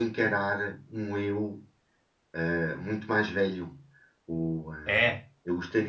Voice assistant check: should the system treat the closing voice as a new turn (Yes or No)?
No